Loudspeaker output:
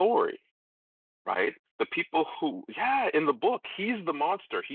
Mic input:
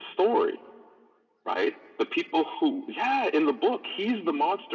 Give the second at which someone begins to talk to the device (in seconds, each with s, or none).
none